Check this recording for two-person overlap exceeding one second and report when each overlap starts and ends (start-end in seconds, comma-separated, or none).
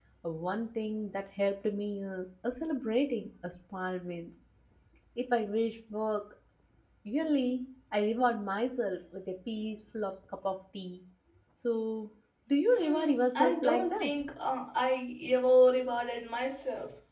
12.7-14.2